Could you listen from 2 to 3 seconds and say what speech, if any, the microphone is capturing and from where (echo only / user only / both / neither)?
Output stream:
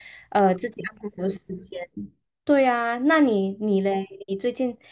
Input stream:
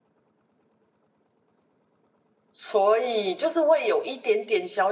user only